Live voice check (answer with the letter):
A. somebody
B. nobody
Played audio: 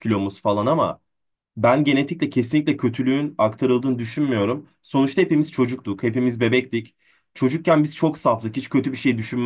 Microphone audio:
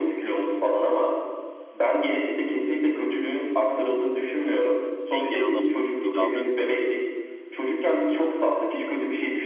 A